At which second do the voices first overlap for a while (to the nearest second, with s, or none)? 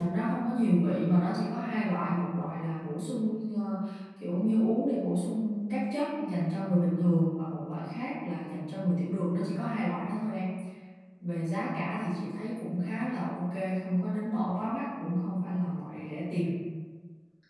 none